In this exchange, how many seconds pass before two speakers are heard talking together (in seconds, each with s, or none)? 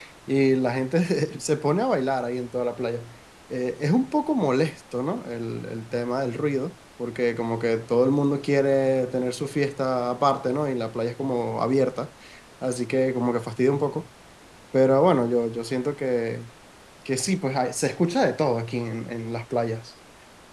none